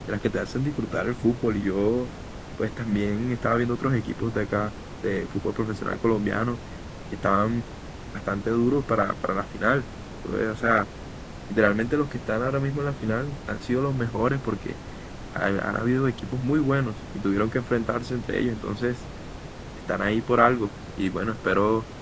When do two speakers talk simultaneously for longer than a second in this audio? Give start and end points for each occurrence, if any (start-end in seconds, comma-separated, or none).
none